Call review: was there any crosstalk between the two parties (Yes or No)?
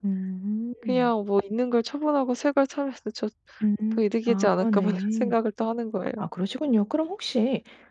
Yes